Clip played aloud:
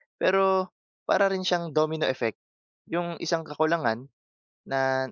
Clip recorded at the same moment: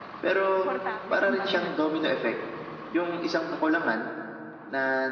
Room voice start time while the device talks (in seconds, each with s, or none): 0.5 s